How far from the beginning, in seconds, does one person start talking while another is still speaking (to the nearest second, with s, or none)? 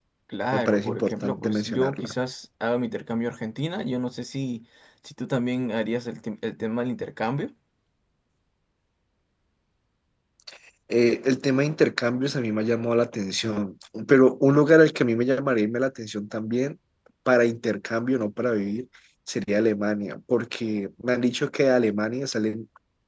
1 s